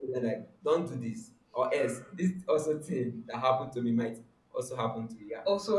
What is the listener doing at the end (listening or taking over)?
taking over